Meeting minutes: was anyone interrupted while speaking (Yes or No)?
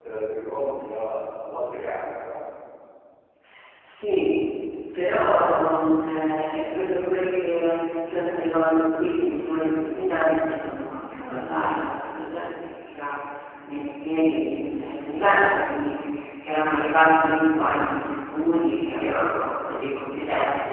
No